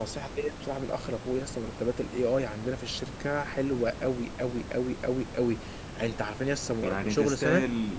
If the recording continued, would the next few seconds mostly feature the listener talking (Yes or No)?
Yes